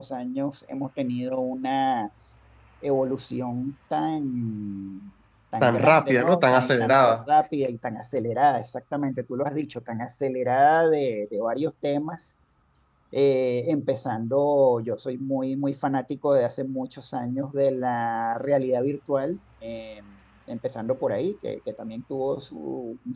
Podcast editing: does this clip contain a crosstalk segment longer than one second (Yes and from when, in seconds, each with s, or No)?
Yes, from 5.6 s